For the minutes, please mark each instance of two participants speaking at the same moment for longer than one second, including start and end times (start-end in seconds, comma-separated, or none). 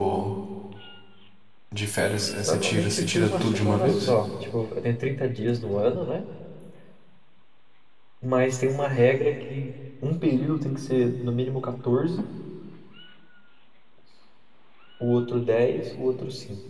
2.5-4.1